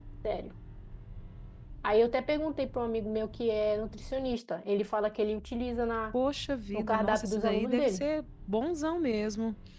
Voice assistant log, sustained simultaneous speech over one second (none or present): present